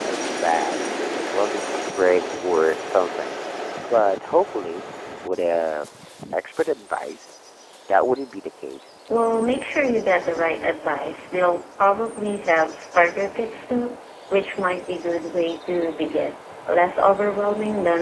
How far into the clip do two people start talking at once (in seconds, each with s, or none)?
none